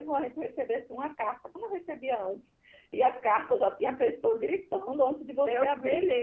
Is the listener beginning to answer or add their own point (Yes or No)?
Yes